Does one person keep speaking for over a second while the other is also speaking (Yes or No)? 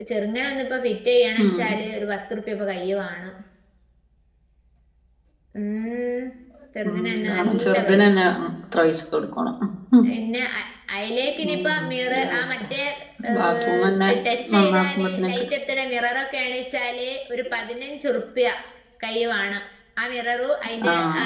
Yes